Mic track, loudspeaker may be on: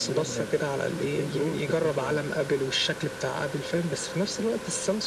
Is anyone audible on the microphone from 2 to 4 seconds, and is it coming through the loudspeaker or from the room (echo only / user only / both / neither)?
echo only